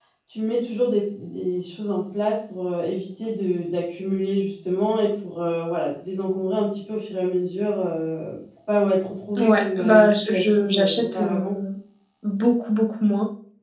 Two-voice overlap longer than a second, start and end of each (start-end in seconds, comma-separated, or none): 9.4-11.6